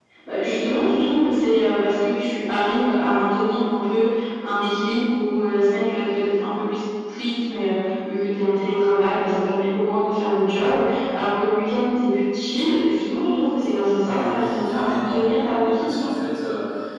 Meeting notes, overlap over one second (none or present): present